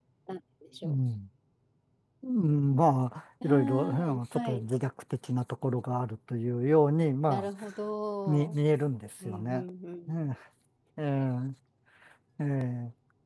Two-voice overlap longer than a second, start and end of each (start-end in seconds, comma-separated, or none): 3.4-4.7